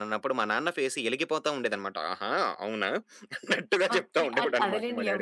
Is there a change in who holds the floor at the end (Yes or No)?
Yes